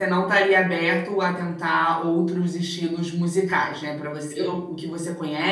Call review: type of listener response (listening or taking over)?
listening